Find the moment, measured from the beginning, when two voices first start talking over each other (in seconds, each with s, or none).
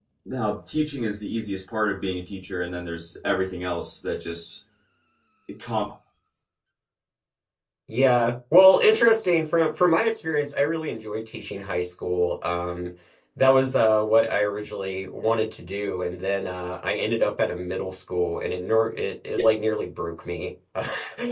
none